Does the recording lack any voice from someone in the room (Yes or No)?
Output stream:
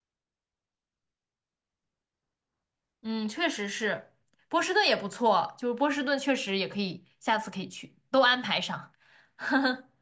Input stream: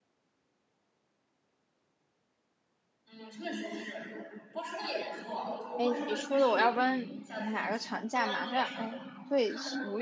No